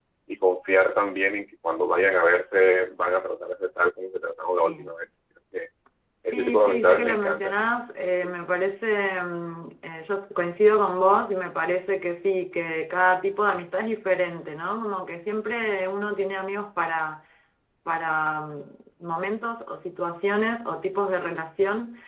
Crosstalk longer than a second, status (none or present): present